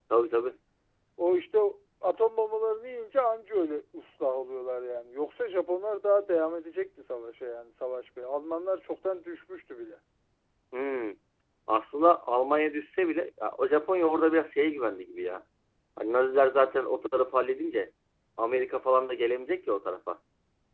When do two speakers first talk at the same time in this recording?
none

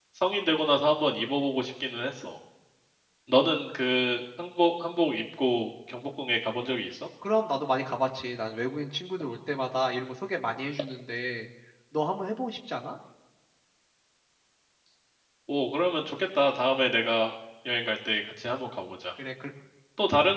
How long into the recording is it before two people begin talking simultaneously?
none

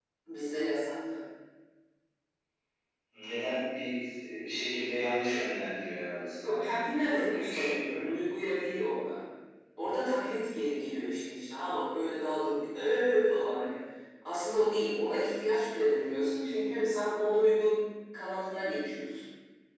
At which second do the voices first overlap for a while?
6 s

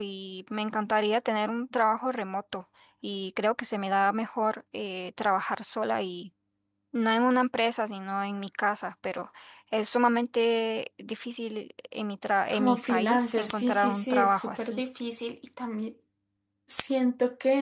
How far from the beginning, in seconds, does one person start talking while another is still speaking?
13 s

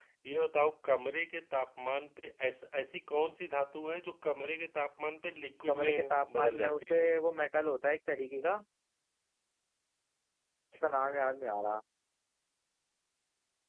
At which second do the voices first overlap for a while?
6 s

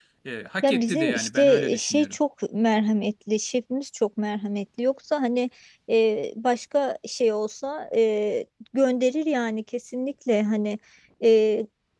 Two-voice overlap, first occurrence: 1 s

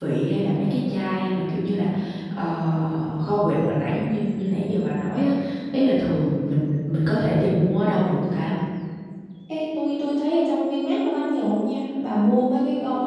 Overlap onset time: none

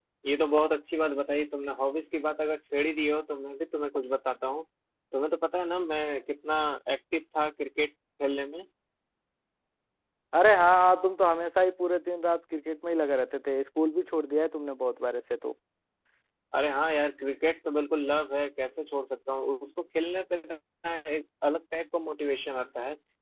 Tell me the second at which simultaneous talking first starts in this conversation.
none

